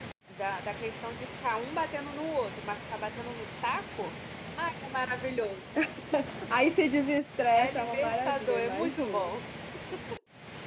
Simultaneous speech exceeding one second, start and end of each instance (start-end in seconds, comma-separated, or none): 7.6-9.3